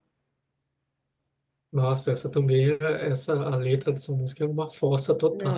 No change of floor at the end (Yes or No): No